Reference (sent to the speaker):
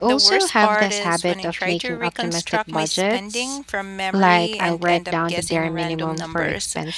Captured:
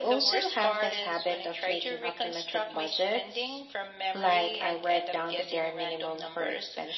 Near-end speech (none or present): none